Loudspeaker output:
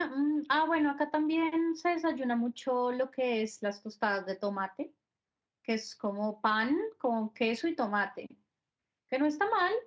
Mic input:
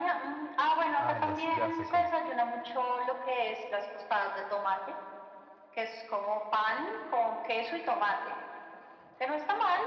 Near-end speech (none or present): present